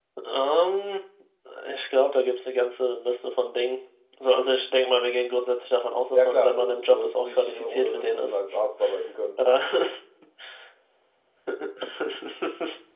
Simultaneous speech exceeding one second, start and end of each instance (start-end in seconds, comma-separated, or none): 6.1-8.4